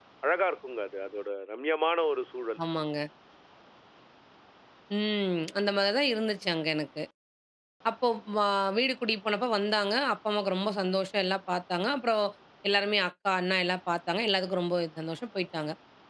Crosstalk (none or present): none